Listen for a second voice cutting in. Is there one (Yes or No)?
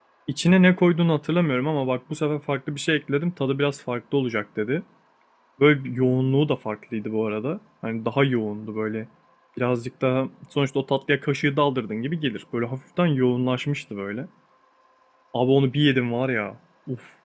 No